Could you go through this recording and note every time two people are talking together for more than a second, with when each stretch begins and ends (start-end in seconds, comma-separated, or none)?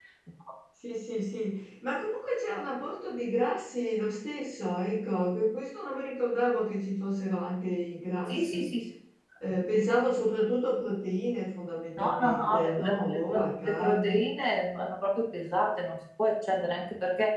12.0-14.2